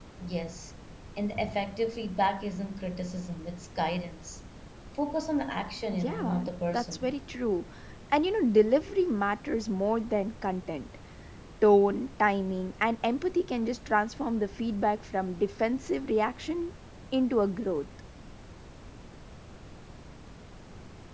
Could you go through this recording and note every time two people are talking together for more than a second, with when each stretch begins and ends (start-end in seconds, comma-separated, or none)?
5.9-7.1